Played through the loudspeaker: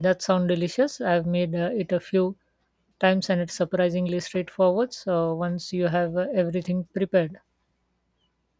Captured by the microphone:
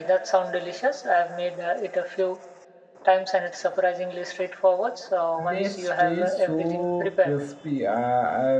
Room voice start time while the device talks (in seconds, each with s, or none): 5.5 s